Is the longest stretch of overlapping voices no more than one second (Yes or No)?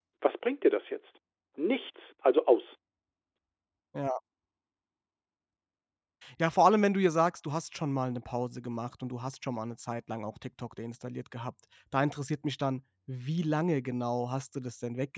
Yes